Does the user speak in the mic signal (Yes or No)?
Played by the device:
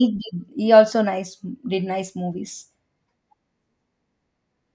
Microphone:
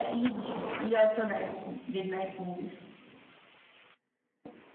No